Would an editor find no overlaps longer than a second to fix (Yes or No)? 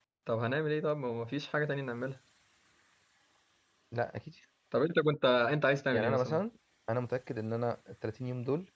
Yes